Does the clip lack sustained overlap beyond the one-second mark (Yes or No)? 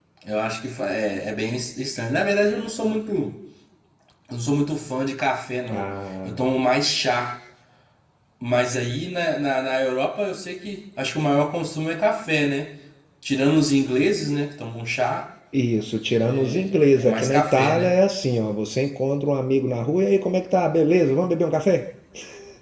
No